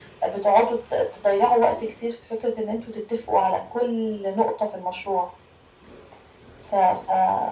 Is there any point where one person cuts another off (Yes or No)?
No